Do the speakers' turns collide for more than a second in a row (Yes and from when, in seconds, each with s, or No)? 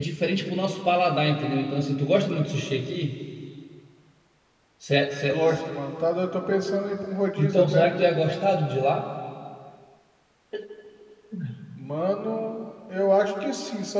No